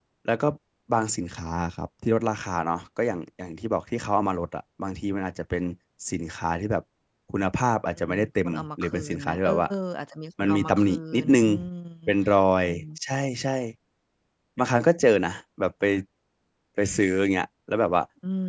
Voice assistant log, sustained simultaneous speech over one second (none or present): present